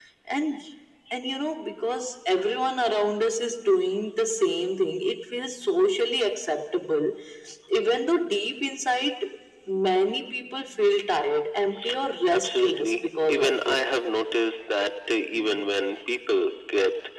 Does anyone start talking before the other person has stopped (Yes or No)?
Yes